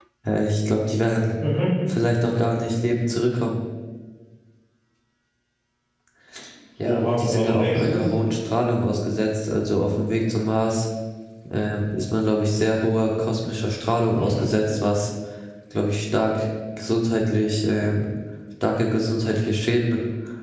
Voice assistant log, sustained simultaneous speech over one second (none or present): present